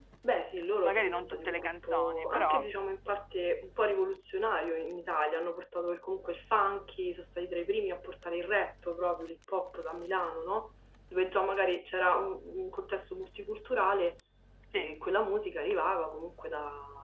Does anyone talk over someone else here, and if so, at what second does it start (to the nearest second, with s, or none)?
1 s